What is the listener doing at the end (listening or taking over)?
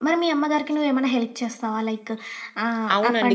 taking over